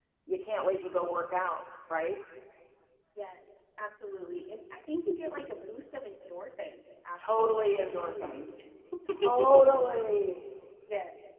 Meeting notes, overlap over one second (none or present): present